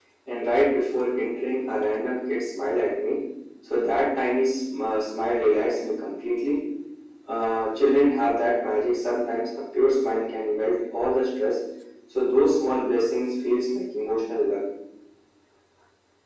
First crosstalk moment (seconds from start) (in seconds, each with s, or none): none